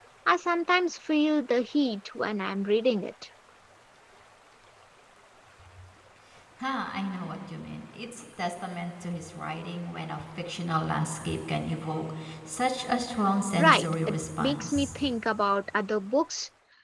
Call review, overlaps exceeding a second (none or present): present